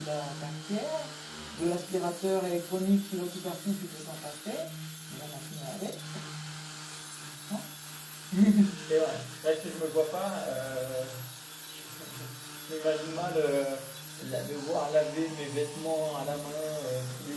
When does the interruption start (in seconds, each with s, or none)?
none